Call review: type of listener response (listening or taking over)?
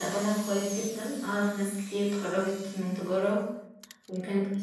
listening